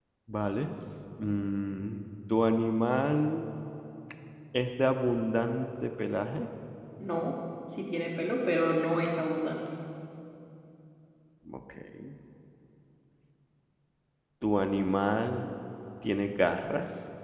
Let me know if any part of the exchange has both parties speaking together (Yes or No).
No